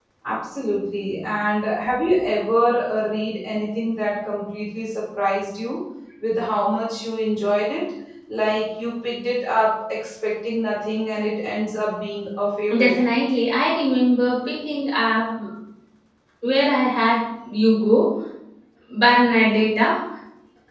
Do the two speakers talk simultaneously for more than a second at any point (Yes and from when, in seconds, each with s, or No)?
No